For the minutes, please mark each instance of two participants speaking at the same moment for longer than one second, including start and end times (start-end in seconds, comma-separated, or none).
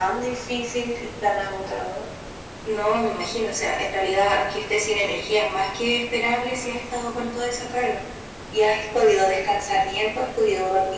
none